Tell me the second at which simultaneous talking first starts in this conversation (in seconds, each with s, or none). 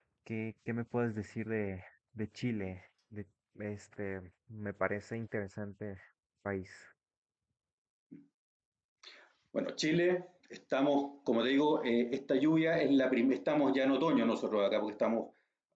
none